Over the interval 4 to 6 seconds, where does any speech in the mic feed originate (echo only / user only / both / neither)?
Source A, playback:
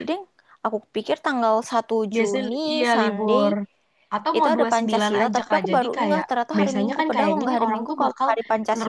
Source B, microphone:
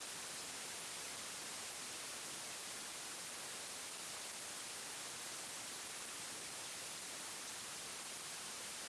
neither